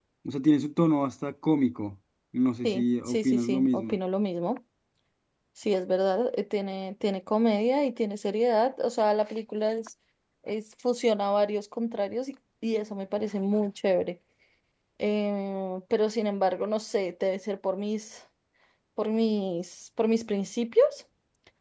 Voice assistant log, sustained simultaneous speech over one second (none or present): present